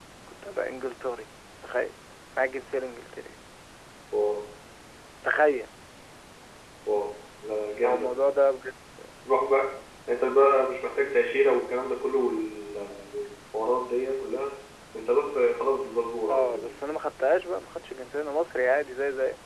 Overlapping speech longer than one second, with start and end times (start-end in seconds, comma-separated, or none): none